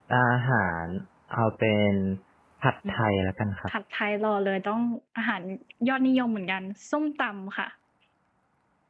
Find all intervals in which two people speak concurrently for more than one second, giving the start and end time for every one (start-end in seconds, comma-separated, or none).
none